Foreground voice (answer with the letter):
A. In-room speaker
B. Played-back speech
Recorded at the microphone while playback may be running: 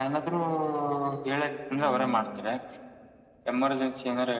B